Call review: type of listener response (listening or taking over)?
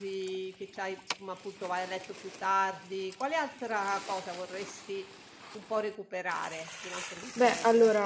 taking over